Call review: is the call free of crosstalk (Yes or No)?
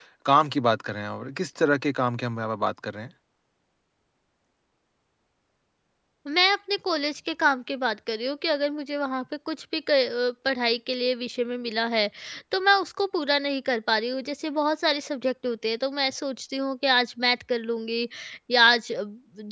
Yes